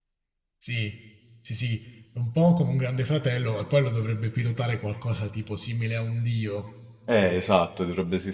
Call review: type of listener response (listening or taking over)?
taking over